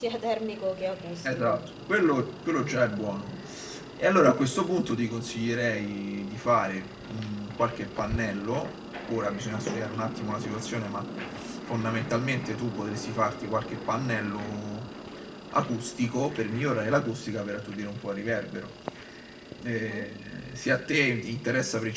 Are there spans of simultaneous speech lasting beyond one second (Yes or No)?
No